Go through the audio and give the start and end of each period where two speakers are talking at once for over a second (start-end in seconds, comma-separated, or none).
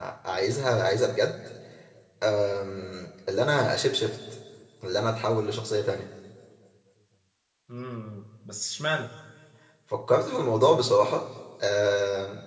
none